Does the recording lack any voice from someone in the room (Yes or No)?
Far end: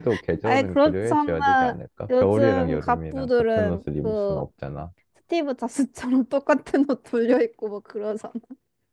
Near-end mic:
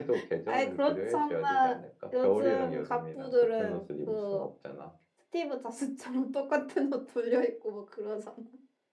Yes